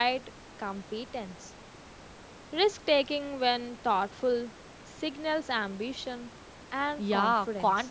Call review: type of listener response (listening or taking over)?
taking over